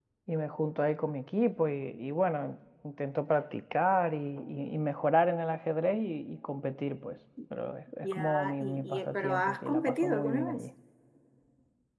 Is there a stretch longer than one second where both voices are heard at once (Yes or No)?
Yes